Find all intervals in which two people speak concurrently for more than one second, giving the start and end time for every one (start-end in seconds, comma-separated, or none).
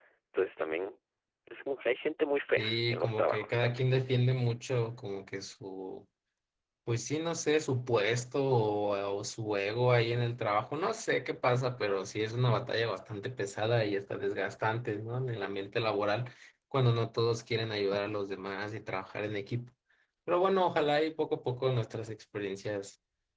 2.6-3.8